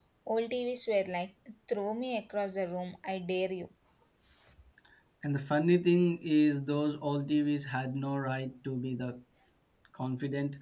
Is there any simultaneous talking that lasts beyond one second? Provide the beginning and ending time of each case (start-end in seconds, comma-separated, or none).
none